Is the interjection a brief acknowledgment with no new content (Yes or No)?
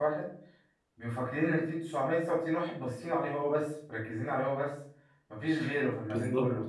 Yes